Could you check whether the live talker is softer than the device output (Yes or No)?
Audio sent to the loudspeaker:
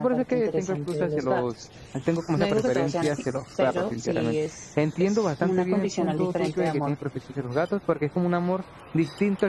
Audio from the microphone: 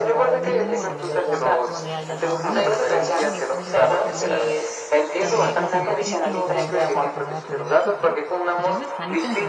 Yes